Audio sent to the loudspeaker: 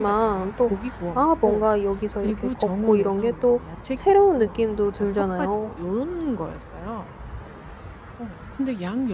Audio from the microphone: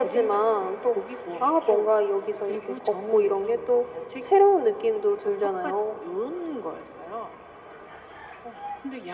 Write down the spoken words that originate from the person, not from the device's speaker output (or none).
none